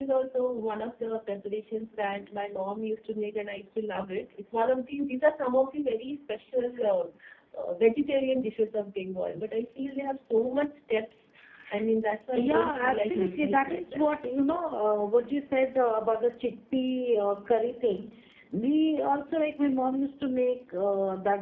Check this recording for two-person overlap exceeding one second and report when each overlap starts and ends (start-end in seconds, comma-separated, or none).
12.3-14.1